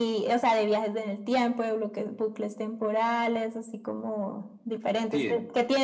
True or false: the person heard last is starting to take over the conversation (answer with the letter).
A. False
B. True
A